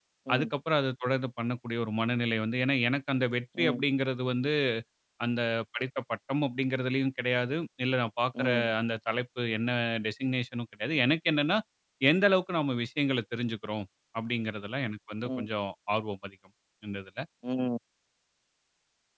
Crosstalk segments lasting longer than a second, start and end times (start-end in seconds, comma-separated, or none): none